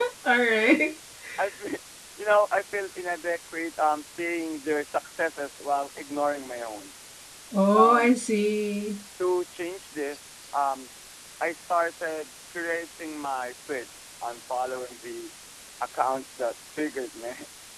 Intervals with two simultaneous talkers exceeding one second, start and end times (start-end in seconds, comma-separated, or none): none